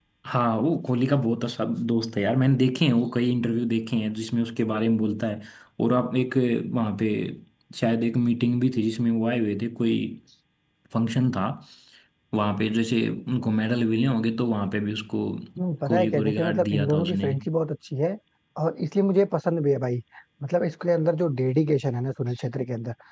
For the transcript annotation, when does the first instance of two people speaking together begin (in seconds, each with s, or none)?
15.9 s